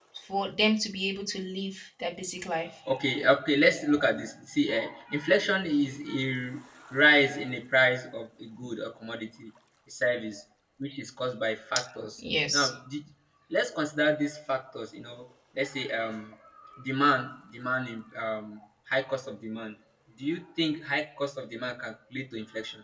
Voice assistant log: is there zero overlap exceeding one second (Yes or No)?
Yes